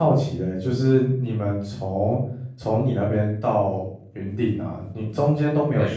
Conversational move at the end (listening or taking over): listening